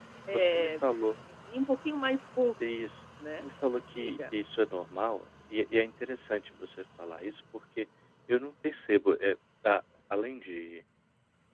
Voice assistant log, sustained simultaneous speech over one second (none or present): none